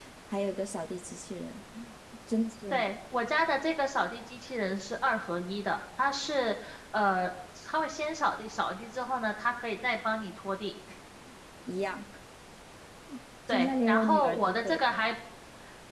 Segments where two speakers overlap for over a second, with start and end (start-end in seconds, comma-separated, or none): 13.5-14.9